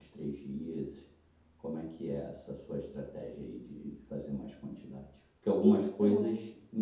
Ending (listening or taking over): listening